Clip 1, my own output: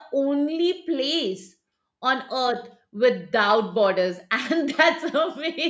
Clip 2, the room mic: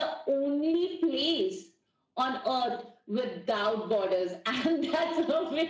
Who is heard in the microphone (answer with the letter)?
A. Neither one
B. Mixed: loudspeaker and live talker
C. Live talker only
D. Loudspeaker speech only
D